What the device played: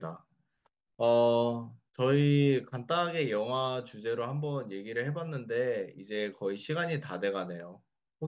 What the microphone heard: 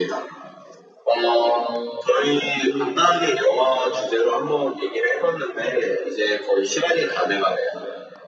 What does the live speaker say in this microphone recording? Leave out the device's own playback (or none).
none